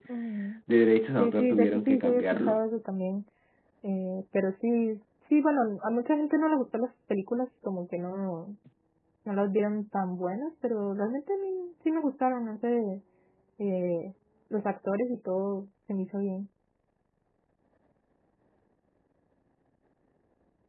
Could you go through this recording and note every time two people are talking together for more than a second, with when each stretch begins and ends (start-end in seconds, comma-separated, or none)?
1.2-2.6